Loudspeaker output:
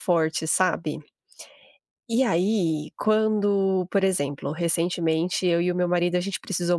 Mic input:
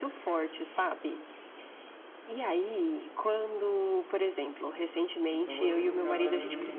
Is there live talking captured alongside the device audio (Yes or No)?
Yes